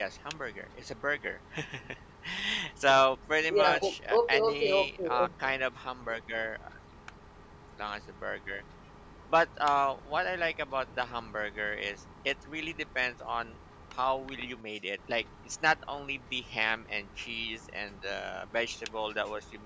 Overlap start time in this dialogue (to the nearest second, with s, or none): 4 s